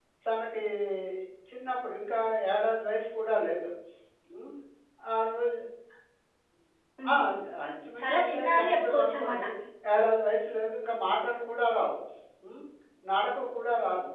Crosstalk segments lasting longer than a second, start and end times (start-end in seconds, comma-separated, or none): 8.0-9.4